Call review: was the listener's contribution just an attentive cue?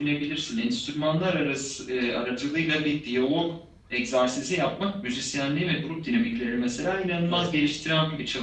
Yes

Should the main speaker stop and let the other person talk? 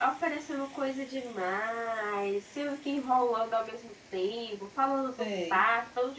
No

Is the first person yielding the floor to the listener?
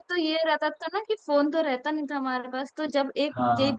No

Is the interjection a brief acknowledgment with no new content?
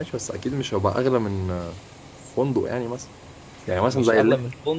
No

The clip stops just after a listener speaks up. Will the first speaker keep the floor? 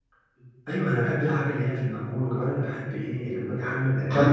No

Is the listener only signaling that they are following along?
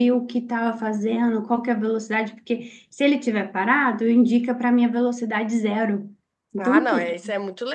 No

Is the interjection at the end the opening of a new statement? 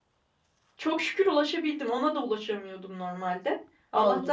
No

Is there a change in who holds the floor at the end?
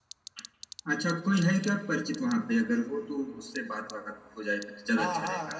Yes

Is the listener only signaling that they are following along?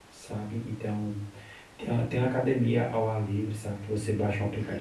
Yes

